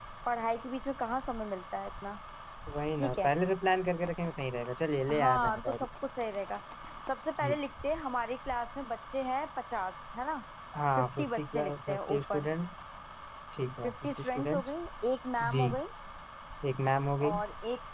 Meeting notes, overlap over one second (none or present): present